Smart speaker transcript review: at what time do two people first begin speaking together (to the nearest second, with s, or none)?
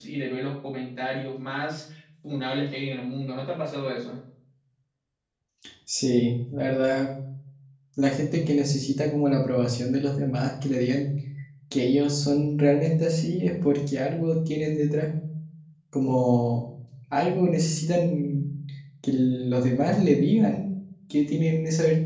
none